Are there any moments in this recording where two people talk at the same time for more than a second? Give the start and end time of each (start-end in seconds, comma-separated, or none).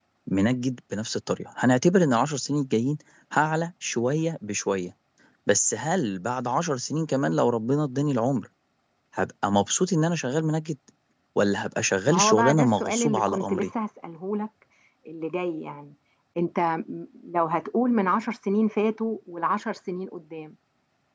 12.1-13.7